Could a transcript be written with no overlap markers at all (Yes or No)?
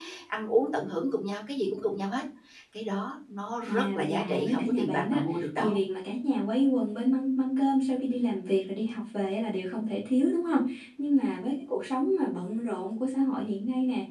No